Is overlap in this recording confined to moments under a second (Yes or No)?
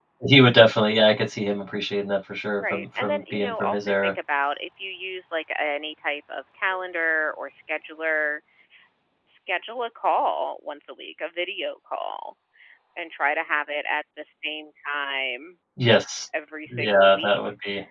No